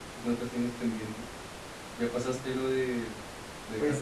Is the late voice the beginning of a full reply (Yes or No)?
Yes